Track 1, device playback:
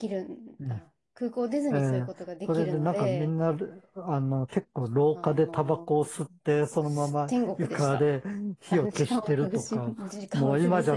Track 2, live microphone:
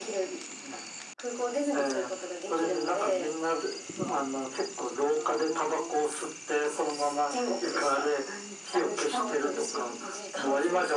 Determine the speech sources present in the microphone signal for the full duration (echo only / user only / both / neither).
echo only